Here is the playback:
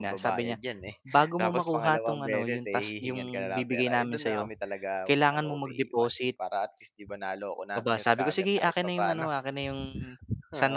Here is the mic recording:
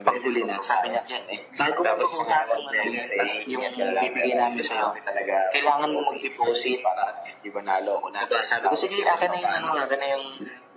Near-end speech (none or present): none